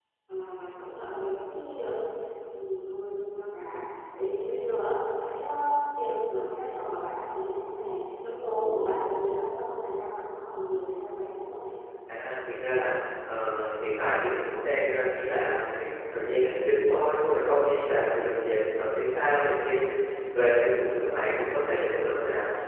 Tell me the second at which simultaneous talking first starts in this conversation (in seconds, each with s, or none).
none